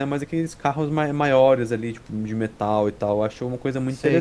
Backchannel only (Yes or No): No